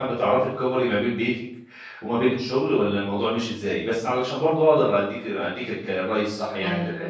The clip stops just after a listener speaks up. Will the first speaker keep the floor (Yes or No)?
No